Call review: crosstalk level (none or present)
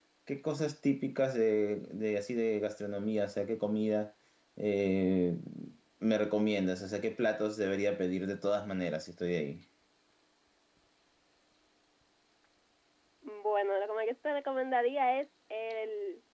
none